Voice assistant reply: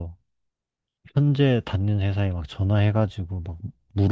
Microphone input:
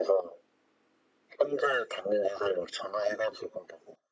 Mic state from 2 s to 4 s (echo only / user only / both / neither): echo only